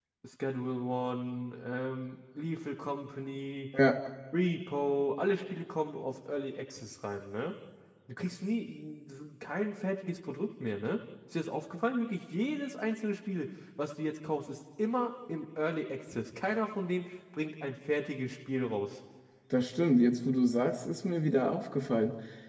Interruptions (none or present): none